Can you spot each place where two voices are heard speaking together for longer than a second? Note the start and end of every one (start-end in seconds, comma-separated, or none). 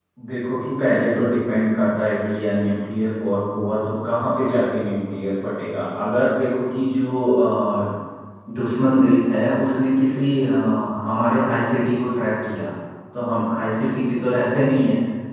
none